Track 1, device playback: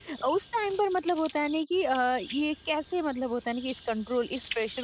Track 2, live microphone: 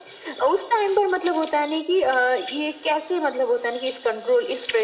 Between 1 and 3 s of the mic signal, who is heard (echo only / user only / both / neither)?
echo only